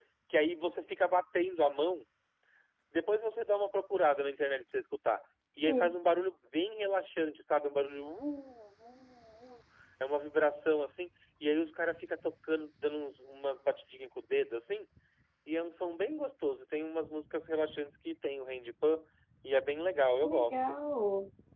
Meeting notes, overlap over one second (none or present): none